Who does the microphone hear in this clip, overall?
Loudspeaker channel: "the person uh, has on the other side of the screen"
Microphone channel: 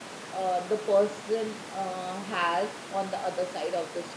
echo only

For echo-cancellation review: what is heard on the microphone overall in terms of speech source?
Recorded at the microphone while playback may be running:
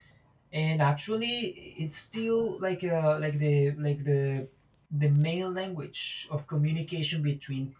user only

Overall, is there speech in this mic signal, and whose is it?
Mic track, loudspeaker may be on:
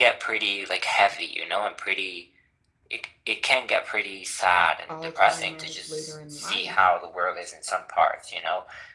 both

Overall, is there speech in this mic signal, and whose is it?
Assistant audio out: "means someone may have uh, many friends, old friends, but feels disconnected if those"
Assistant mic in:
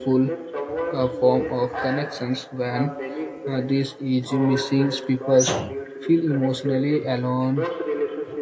both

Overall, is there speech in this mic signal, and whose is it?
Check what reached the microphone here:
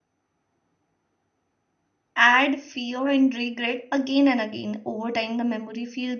user only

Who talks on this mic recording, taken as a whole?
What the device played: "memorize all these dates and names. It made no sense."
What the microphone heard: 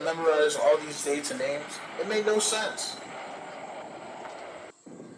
echo only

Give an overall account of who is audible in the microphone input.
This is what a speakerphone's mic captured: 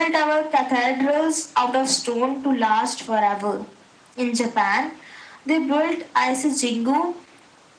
echo only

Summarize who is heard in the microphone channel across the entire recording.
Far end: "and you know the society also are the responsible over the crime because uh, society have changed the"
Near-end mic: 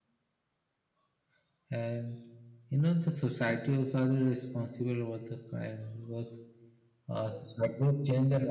echo only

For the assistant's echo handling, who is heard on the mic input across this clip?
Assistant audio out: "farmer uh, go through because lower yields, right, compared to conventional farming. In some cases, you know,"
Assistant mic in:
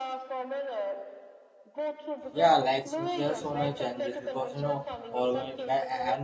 both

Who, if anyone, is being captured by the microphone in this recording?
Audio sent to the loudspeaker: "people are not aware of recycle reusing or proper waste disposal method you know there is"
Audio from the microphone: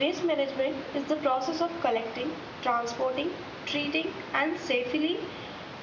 user only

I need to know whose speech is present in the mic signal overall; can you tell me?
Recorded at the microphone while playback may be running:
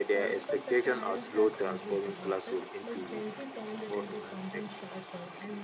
both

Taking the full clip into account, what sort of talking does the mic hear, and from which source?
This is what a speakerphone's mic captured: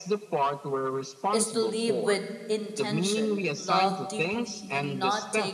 both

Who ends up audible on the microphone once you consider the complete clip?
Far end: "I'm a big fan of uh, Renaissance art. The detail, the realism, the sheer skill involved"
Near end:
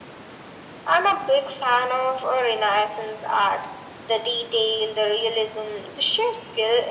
echo only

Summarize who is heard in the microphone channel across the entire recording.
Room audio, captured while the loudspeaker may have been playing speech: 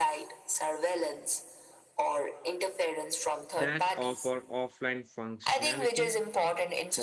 both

